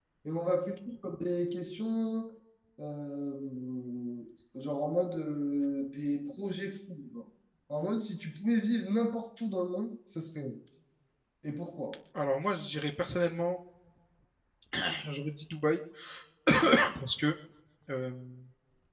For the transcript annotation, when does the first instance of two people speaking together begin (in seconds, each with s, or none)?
none